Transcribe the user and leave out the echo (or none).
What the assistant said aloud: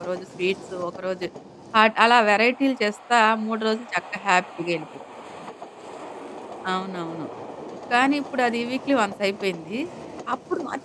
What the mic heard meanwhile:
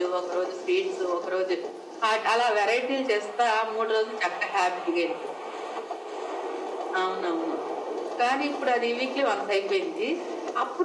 none